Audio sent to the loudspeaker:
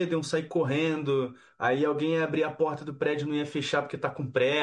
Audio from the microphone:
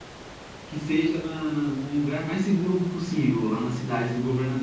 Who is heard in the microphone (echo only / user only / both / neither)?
user only